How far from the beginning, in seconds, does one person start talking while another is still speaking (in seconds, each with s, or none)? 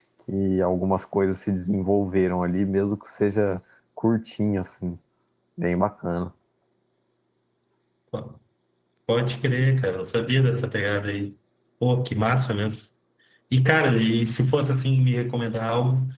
none